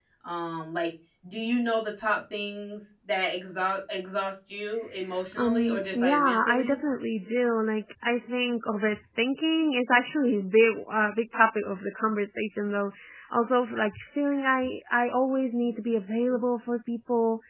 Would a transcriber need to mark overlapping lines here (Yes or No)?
Yes